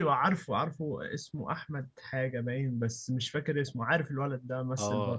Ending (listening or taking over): taking over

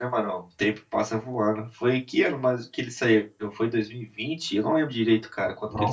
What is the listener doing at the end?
taking over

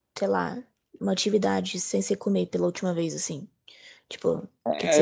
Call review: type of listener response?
taking over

